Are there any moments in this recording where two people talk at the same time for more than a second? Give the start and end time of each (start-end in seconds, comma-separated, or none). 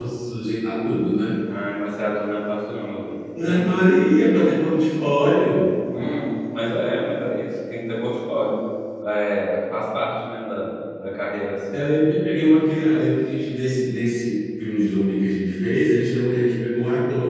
none